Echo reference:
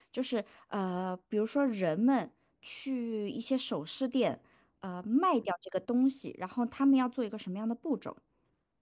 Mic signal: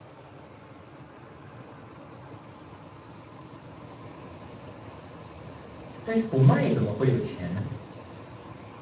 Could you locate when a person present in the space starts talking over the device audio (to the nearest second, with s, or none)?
6 s